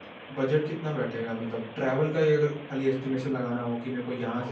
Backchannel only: Yes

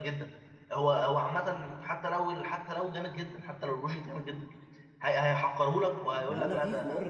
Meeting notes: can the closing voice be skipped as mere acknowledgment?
No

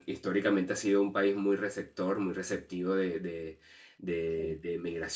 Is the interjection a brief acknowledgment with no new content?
Yes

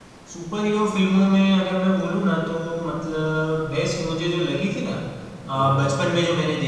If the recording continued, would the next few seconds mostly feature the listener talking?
No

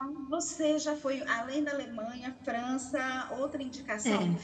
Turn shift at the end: No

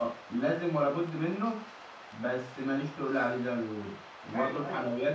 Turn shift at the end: No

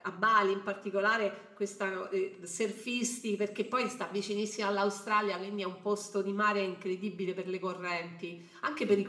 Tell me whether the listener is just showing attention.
Yes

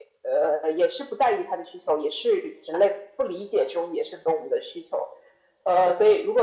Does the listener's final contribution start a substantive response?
No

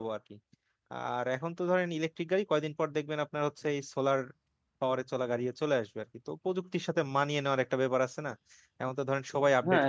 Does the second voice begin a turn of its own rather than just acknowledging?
Yes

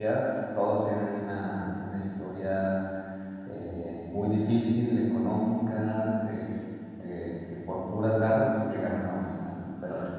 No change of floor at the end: No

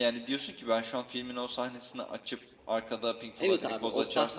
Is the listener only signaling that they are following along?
No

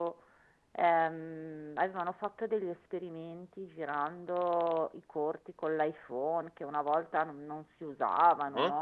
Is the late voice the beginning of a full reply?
Yes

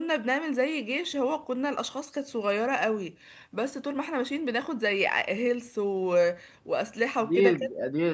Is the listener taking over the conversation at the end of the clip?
Yes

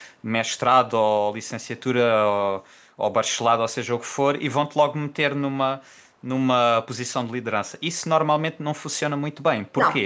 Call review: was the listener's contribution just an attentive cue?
Yes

